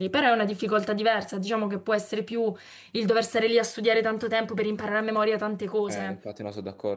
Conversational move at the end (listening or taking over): taking over